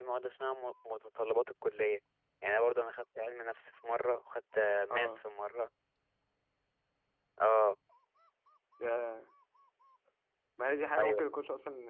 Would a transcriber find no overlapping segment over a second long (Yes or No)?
Yes